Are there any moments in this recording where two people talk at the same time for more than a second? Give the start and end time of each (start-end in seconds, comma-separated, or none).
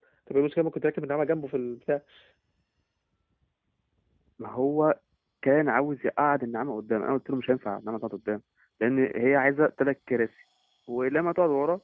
none